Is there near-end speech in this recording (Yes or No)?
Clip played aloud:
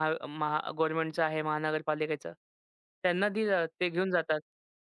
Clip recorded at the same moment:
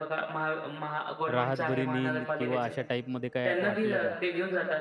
Yes